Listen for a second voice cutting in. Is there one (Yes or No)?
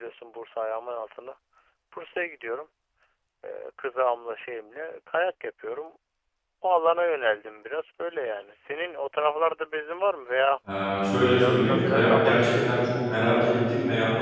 Yes